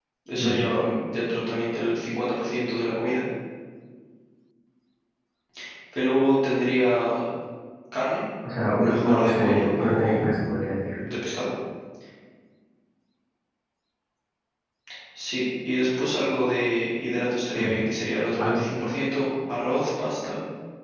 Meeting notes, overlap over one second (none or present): present